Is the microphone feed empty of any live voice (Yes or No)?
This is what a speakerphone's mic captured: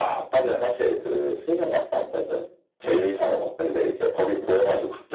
Yes